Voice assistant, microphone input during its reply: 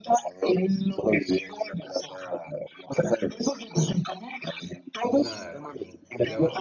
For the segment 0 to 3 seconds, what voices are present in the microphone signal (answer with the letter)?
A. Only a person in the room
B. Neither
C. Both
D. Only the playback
D